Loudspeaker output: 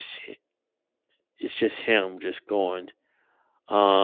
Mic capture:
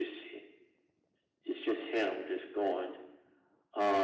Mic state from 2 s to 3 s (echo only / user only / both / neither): echo only